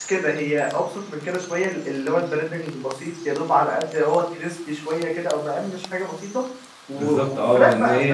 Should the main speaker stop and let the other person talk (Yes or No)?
Yes